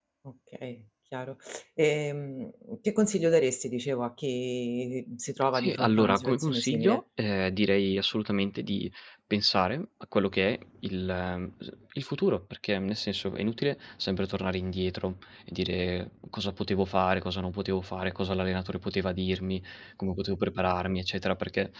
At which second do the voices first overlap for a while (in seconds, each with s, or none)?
5.5 s